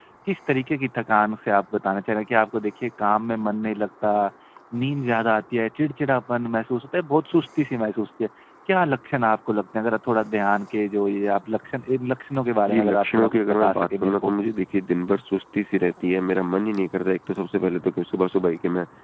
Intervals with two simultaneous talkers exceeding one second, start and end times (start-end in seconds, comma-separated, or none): 12.7-14.4